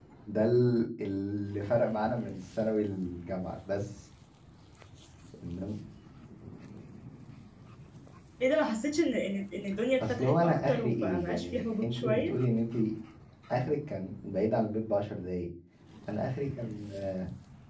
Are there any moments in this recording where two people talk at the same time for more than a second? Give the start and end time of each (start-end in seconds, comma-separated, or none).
10.0-12.3